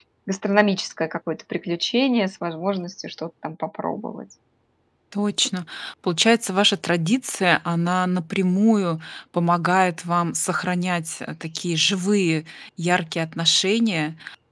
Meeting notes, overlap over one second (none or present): none